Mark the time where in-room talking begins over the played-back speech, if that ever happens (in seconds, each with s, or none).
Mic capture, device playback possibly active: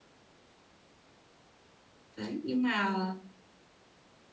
2.2 s